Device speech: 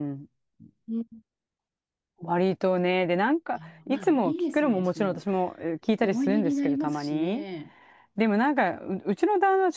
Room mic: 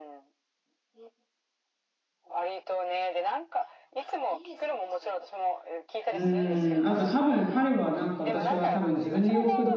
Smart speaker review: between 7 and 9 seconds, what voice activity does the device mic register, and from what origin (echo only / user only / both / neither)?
both